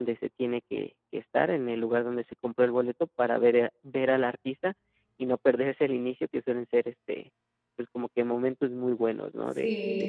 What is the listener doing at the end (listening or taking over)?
taking over